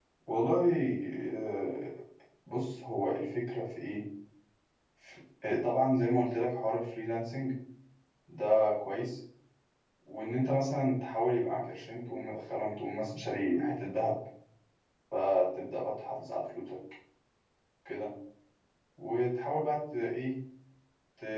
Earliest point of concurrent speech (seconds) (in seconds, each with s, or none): none